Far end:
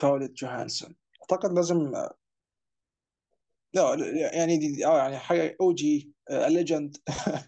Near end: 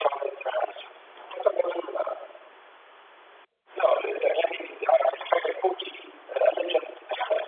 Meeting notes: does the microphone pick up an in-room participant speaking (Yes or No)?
No